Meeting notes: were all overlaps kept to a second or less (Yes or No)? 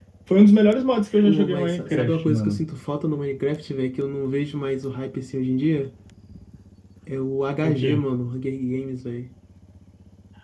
No